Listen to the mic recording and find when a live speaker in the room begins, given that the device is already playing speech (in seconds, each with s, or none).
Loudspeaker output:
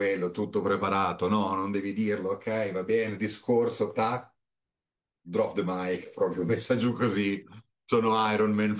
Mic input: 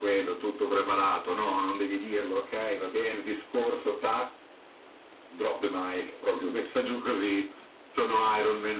none